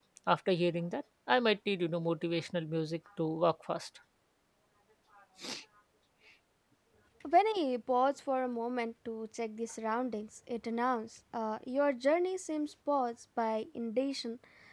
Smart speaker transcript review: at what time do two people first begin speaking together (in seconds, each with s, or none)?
none